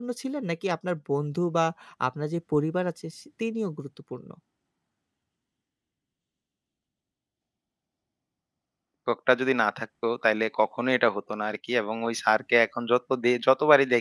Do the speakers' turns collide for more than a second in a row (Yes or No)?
No